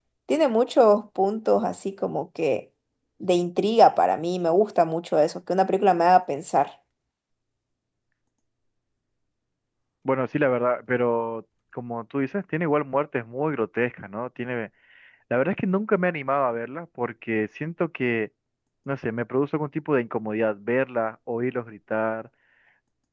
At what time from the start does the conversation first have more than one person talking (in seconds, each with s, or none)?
none